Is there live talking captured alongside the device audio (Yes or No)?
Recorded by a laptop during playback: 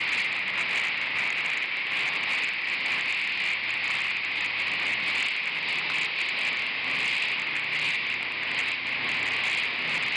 No